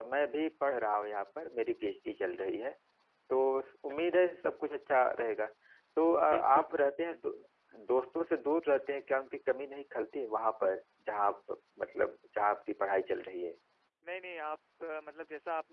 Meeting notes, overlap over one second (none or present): none